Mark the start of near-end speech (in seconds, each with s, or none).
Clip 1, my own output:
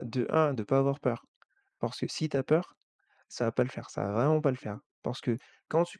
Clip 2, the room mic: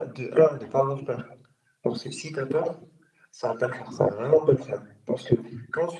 none